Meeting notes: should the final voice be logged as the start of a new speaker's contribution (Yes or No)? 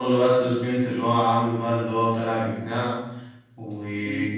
Yes